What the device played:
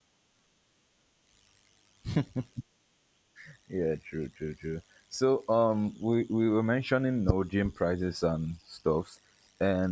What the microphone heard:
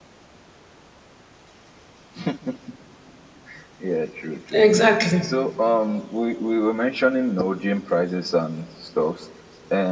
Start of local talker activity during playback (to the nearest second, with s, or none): 5 s